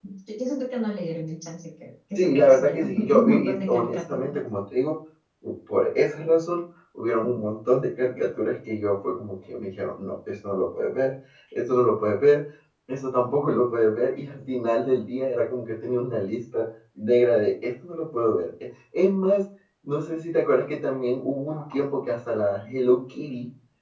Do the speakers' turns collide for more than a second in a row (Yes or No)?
Yes